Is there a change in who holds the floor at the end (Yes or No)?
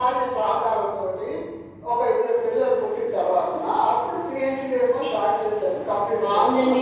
Yes